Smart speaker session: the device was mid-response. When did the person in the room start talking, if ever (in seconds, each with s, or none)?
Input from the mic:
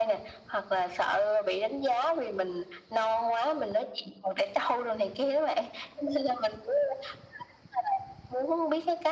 none